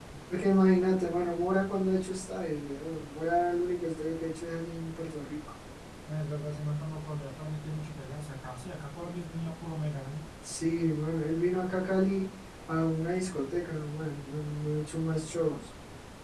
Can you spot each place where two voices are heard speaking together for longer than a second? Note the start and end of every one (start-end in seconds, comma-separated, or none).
none